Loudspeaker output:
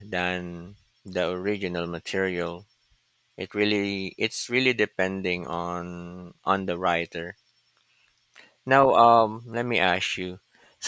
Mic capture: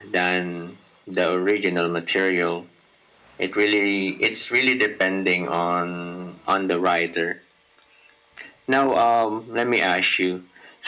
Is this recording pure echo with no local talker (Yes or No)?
Yes